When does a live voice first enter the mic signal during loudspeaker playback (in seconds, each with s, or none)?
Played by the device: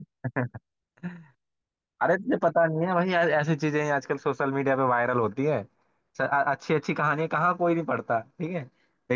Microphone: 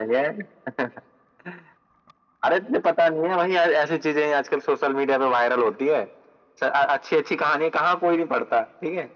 none